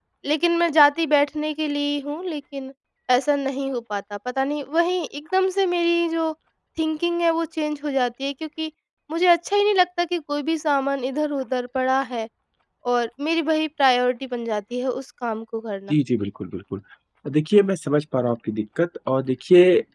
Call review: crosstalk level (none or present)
none